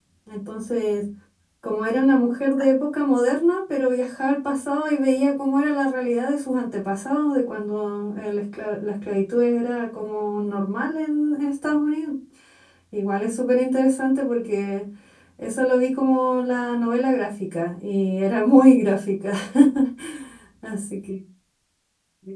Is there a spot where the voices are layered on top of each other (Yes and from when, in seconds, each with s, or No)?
No